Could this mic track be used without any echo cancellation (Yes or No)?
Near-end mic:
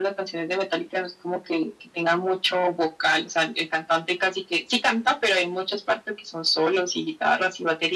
No